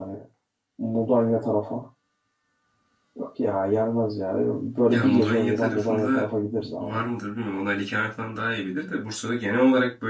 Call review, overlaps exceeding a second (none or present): present